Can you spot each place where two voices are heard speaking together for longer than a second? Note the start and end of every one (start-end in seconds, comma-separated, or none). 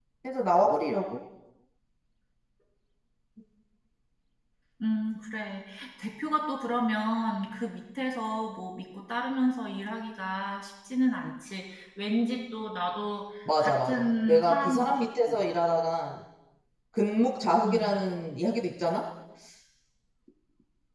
13.6-15.4